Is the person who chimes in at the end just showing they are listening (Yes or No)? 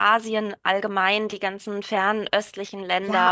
No